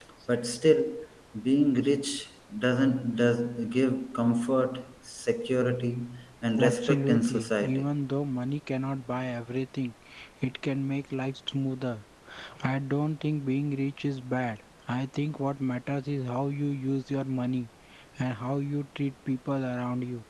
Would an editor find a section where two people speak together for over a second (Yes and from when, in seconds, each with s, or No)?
Yes, from 6.6 s